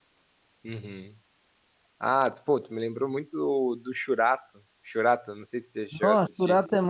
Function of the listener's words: taking over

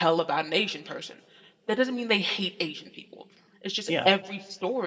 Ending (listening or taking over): listening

